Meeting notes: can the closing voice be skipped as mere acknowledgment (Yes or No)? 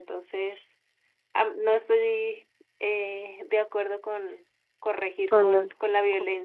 No